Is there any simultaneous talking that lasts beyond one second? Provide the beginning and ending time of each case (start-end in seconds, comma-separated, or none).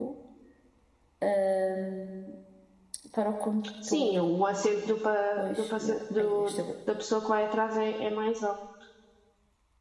5.4-6.6